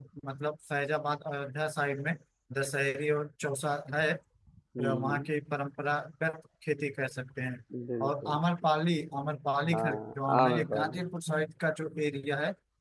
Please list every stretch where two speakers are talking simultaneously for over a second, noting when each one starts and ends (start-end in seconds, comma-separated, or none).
9.7-11.1